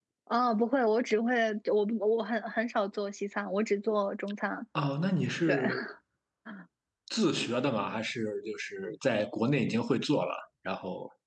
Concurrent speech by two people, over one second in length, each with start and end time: none

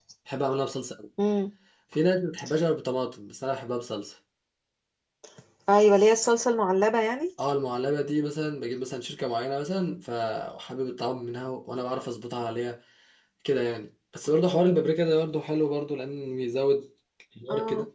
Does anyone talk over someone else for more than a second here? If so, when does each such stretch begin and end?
none

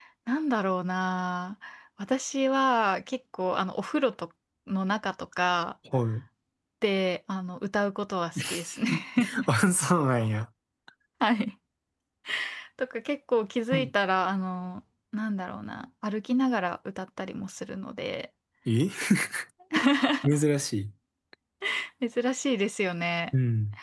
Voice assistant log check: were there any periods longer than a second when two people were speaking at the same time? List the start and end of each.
none

